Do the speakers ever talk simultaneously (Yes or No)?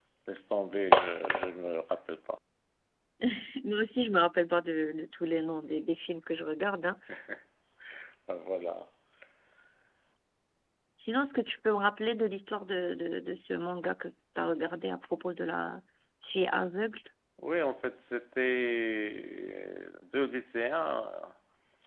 No